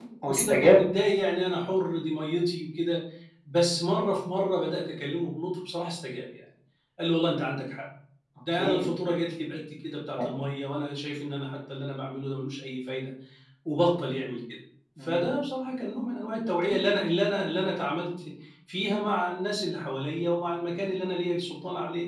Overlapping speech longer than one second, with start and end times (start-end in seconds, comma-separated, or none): none